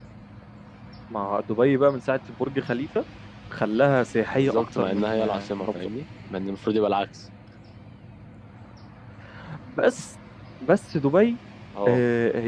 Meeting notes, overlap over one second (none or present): present